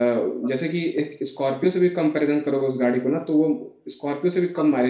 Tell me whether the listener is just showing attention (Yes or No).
Yes